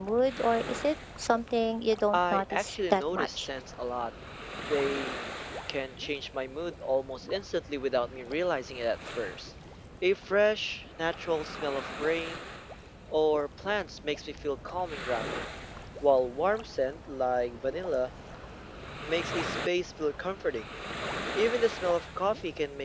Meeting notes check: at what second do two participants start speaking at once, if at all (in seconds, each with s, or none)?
2.1 s